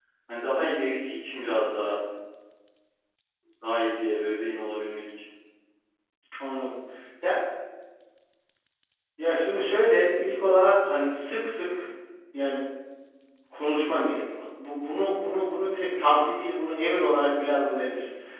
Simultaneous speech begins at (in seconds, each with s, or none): none